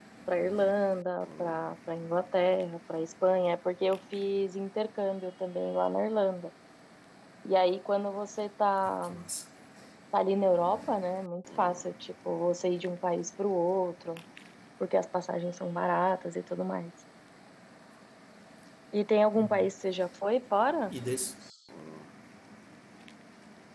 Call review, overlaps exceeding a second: none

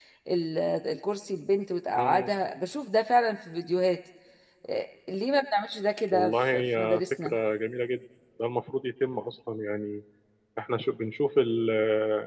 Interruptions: present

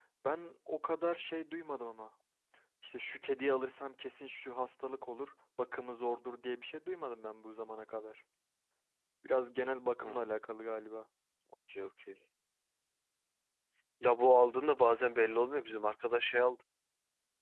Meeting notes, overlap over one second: none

